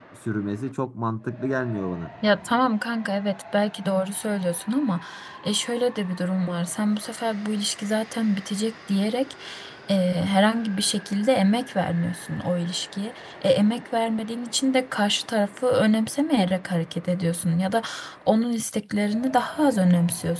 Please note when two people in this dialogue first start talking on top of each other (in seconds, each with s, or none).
none